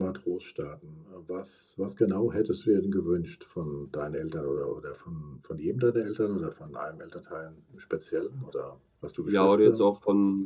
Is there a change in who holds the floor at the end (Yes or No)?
Yes